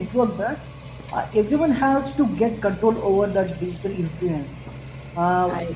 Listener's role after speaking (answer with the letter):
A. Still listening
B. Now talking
A